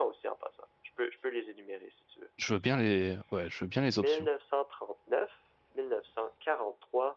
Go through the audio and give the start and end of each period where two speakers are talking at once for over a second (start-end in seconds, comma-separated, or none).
none